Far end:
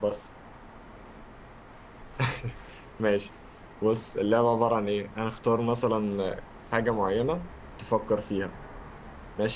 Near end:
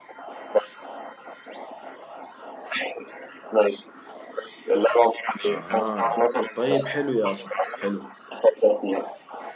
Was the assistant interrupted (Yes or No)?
Yes